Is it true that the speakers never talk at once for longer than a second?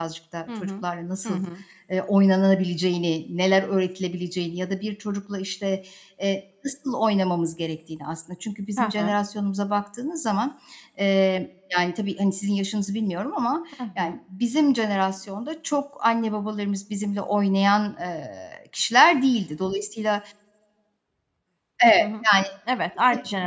Yes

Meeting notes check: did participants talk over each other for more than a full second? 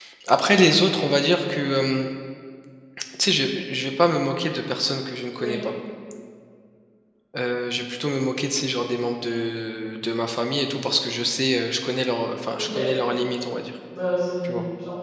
No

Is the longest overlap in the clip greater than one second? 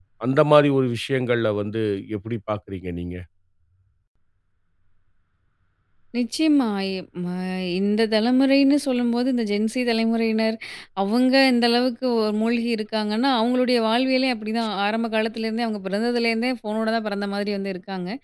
No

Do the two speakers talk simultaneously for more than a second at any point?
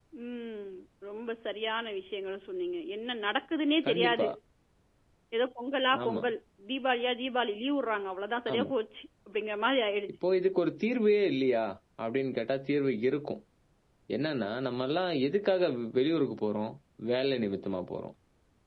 No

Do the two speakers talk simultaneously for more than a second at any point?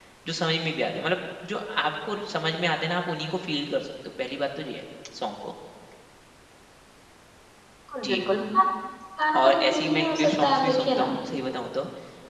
Yes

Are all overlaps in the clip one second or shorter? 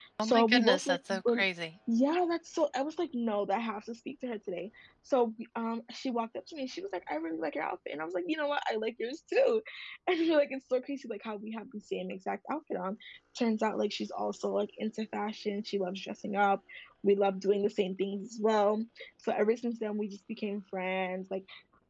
No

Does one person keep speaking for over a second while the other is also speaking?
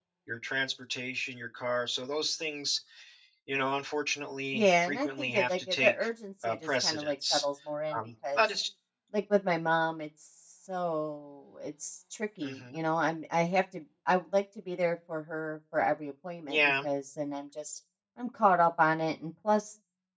Yes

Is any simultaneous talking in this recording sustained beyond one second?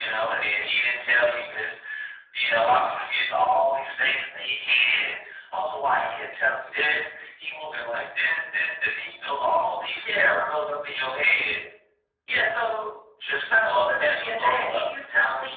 Yes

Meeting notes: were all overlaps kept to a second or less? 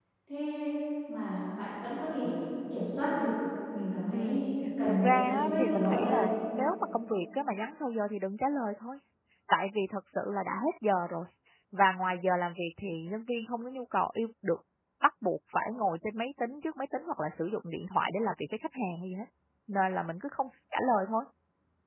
No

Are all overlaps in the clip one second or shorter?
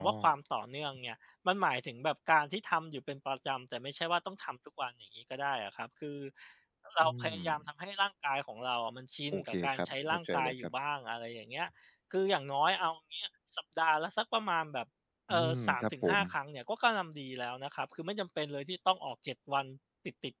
No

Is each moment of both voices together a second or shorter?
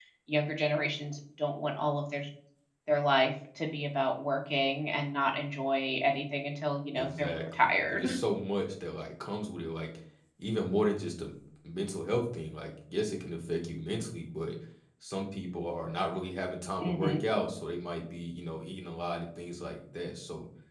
No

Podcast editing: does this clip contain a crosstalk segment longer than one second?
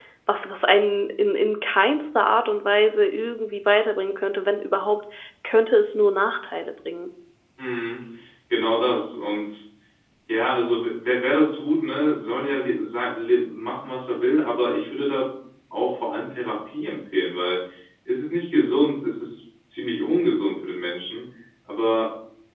No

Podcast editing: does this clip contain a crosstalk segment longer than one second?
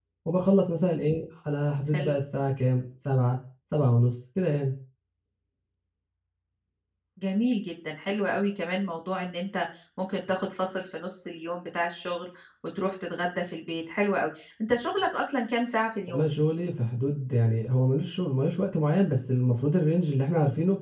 No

